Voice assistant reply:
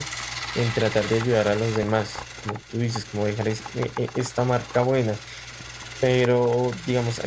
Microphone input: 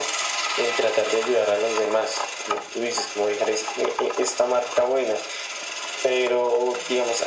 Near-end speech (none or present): none